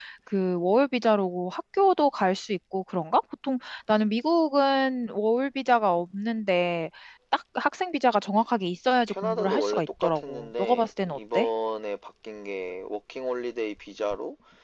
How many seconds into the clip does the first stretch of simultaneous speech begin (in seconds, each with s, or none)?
9.1 s